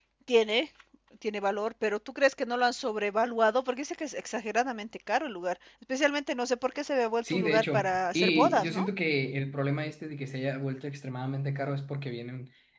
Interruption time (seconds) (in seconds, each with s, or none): 7.2 s